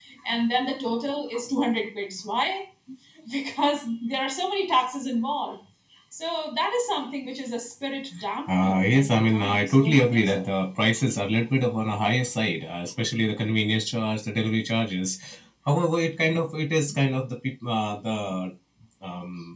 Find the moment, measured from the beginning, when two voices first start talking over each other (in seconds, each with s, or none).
8.5 s